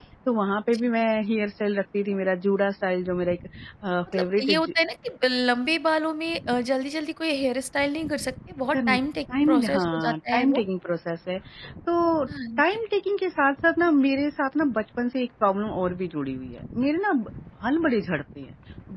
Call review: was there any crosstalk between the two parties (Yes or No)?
Yes